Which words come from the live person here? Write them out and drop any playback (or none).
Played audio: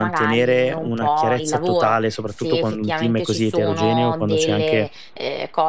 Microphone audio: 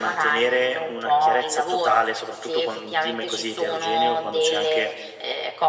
none